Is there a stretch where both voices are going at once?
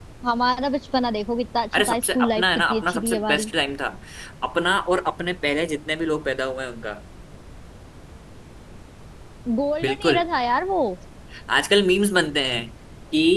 Yes, from 1.7 s

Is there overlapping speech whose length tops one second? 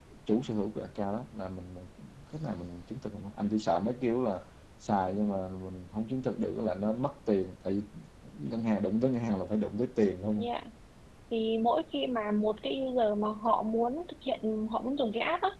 No

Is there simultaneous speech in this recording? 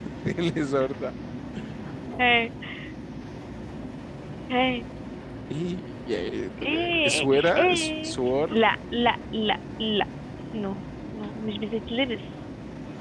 Yes, from 6.6 s

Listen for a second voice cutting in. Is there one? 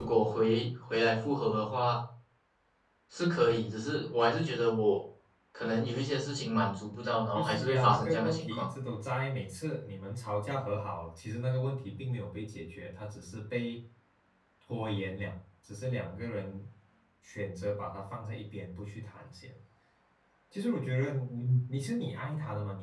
Yes, from 7.3 s

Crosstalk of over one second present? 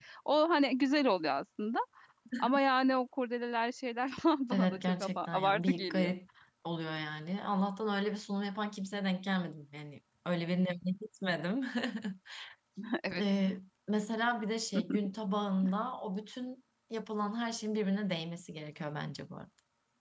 Yes, from 4.5 s

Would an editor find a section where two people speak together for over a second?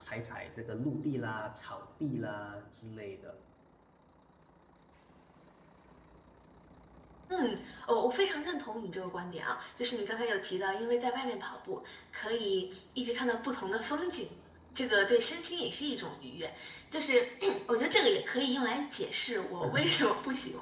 No

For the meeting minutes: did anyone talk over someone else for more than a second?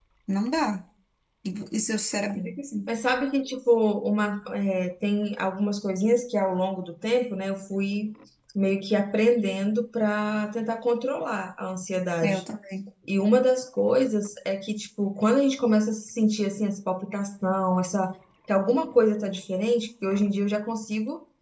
No

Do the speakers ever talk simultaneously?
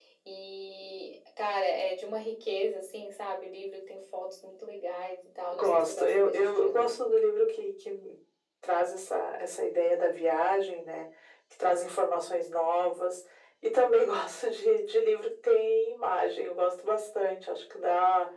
Yes, from 5.5 s

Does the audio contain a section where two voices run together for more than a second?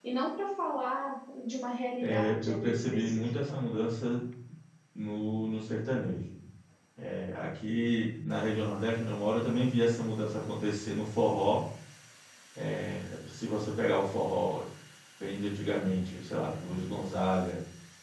Yes, from 2.0 s

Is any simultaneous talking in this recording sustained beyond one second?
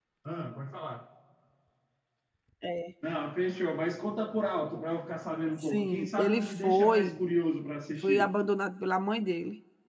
Yes, from 5.7 s

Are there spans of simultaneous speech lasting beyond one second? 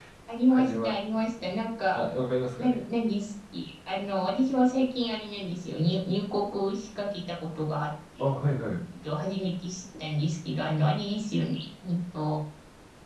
No

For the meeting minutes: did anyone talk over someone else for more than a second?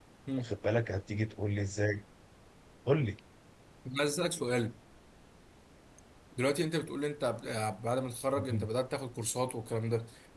No

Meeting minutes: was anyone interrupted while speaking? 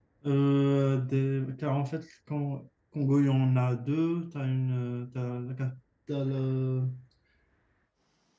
No

